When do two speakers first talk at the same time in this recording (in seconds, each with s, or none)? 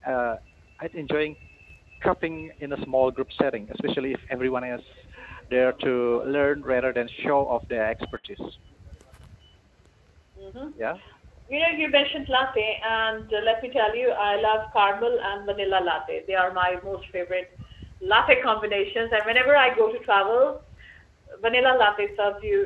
none